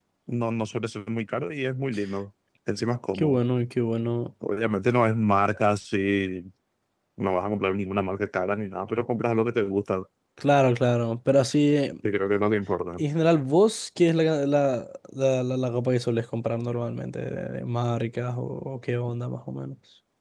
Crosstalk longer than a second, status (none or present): none